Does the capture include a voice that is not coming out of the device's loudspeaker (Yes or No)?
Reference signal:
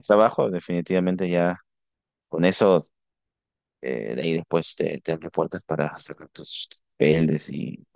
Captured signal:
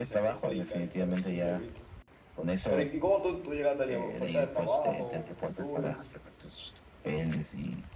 Yes